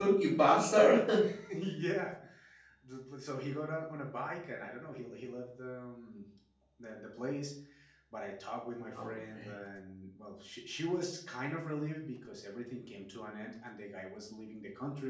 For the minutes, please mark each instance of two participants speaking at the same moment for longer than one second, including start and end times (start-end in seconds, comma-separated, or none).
none